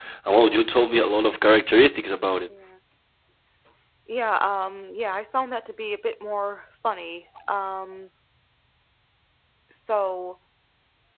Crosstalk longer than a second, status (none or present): none